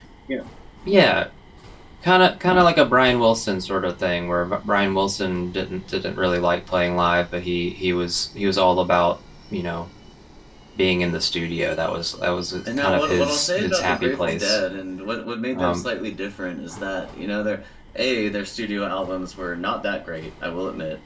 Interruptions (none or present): present